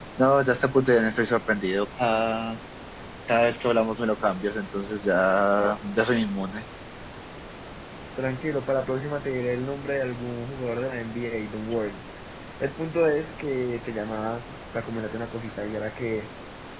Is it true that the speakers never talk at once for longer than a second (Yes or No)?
Yes